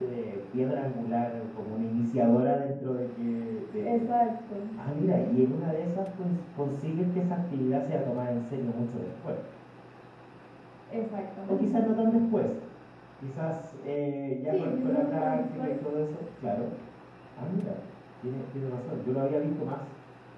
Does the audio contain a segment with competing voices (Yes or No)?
Yes